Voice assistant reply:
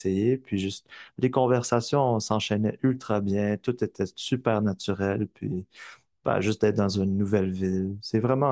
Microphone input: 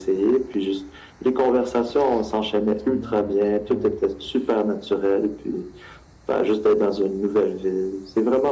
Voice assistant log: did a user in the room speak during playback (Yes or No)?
Yes